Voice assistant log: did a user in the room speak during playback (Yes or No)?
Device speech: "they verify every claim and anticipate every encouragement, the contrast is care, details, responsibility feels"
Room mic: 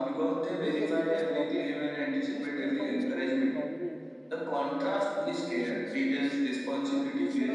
Yes